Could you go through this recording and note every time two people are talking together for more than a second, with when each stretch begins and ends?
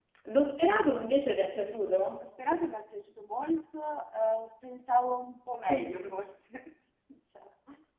none

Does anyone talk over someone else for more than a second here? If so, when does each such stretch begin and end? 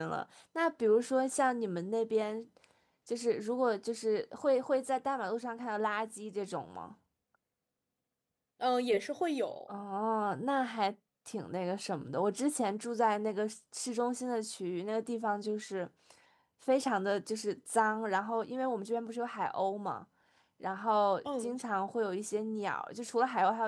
none

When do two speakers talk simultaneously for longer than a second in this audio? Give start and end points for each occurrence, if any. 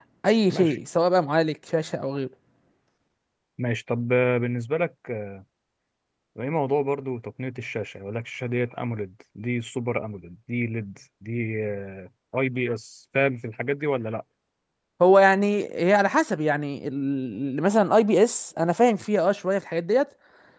none

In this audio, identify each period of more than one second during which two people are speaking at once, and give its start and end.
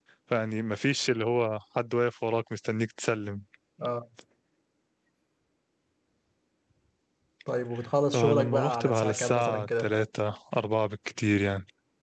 8.1-9.9

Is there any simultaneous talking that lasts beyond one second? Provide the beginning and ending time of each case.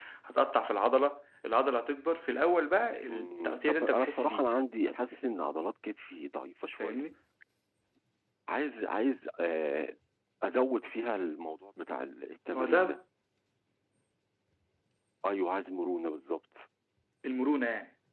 3.1-4.5

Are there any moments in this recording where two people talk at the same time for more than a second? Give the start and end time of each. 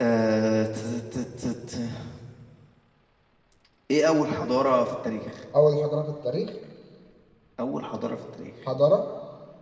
none

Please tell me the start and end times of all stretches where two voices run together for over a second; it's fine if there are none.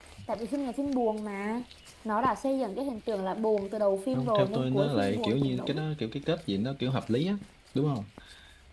4.1-5.8

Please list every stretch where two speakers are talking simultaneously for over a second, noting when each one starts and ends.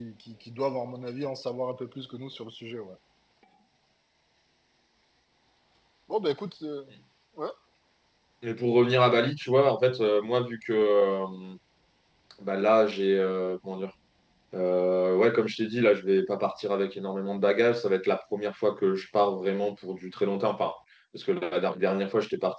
none

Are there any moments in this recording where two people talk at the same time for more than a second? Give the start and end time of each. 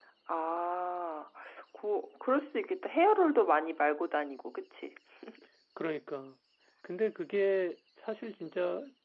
none

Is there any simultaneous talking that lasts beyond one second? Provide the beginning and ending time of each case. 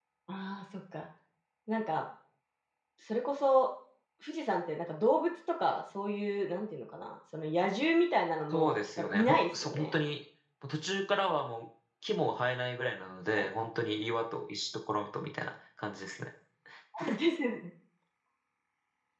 8.5-9.9

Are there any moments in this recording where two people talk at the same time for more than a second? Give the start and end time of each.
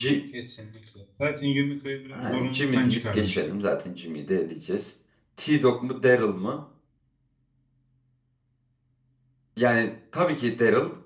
2.1-3.4

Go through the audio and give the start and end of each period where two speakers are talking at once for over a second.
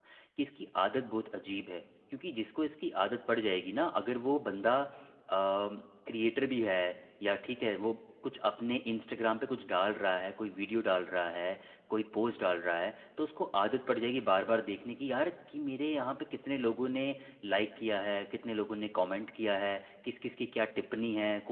none

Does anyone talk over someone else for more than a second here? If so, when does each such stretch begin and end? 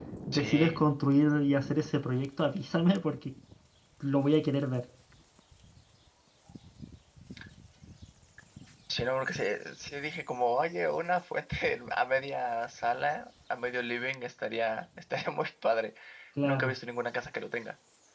none

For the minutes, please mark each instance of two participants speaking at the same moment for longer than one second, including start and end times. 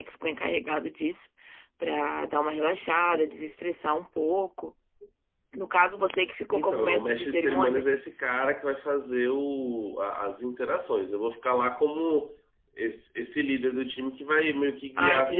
6.5-8.0

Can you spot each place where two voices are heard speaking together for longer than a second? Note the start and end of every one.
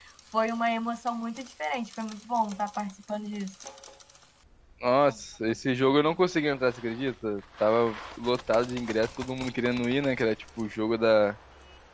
none

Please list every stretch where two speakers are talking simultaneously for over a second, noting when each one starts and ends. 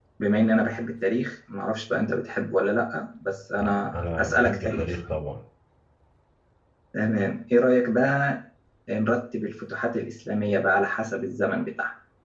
3.6-4.9

